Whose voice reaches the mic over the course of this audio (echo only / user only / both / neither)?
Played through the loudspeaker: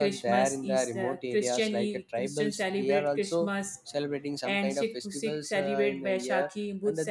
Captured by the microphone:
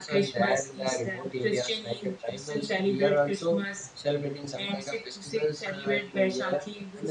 echo only